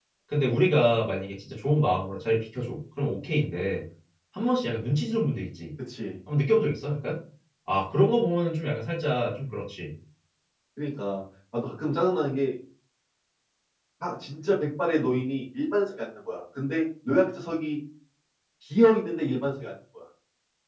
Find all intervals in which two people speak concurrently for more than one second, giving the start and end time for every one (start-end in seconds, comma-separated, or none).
none